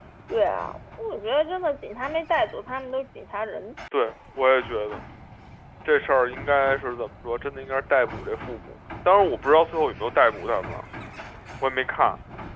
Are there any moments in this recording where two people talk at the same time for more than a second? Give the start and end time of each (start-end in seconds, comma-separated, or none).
none